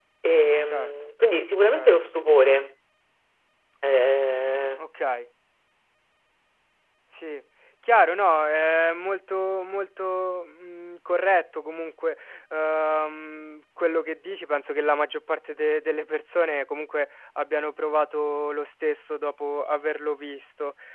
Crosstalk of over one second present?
No

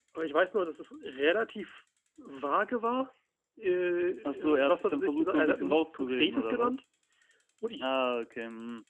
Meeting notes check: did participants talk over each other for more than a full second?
Yes, from 4.2 s

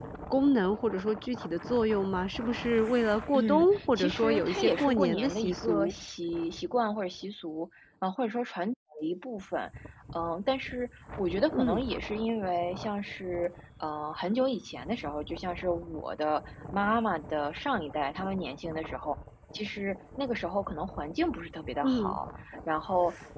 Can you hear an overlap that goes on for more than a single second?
Yes, from 3.4 s

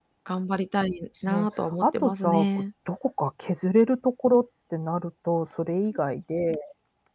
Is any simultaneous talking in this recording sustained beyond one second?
Yes, from 1.3 s

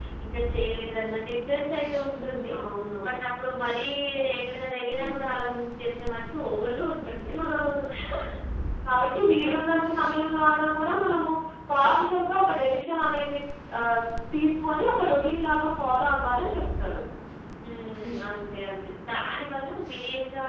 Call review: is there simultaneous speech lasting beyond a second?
No

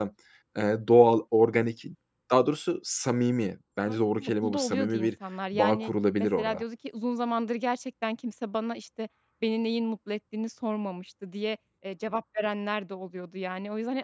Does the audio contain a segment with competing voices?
Yes, from 3.9 s

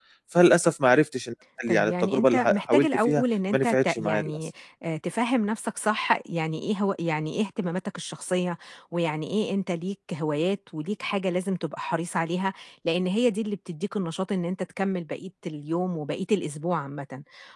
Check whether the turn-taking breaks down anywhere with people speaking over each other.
Yes, from 1.7 s

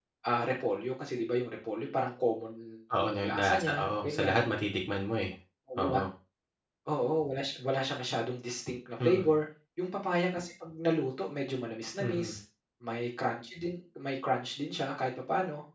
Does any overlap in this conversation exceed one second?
Yes, from 3.0 s

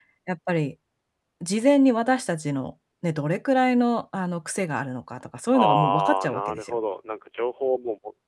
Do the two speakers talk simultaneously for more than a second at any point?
Yes, from 5.5 s

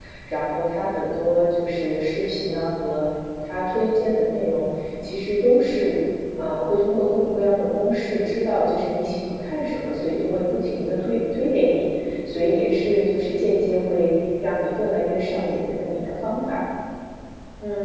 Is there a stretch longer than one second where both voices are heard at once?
No

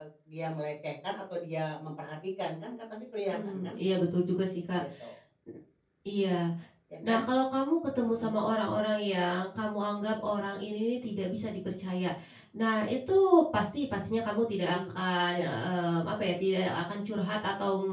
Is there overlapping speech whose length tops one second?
No

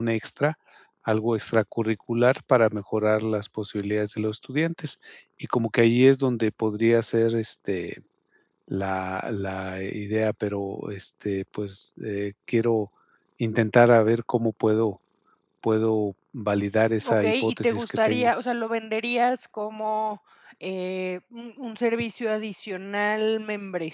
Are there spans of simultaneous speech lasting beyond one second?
Yes, from 17.0 s

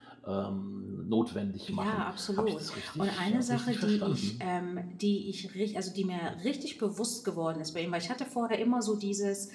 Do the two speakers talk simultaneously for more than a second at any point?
Yes, from 1.7 s

